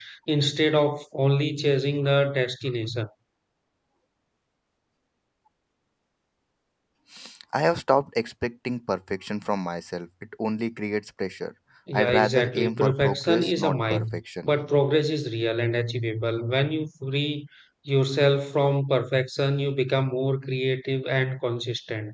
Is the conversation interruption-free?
No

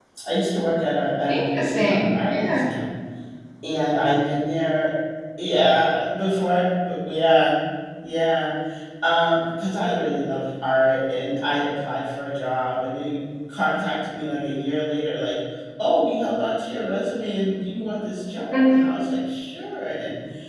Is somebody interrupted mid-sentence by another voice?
Yes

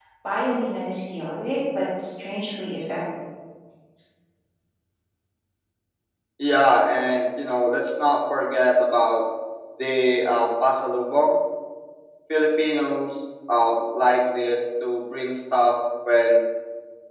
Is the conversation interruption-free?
Yes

